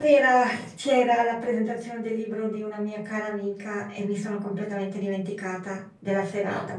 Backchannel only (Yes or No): Yes